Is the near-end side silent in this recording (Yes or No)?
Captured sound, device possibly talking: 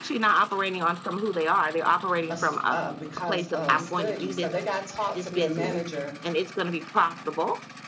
No